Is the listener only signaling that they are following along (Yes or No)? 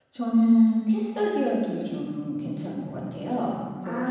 No